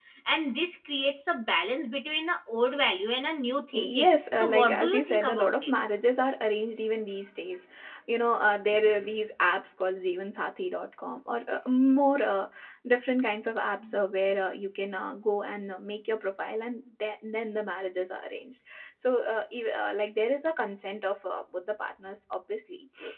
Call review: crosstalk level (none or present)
present